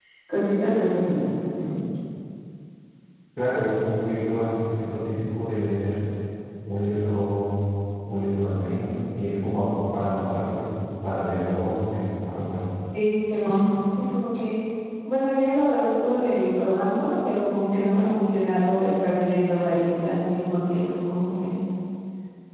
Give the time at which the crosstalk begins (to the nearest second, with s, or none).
none